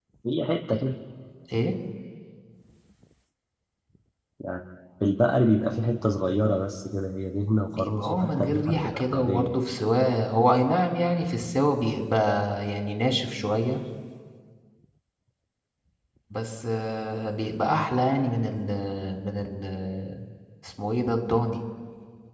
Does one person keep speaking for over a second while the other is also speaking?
Yes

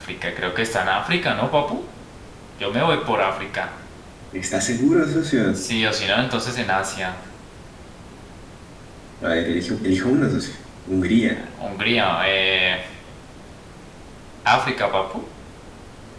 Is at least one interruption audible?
No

